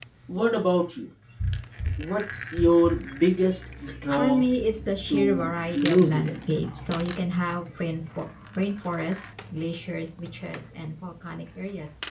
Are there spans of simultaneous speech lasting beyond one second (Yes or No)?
Yes